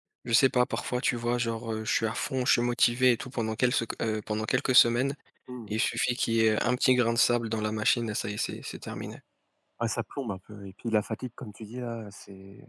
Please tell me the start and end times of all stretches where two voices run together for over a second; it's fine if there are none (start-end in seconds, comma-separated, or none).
none